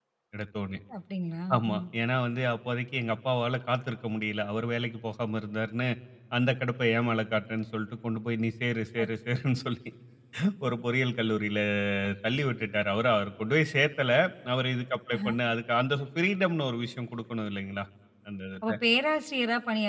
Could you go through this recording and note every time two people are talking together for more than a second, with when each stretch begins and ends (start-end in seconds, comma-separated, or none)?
none